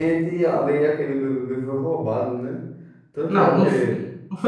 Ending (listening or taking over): taking over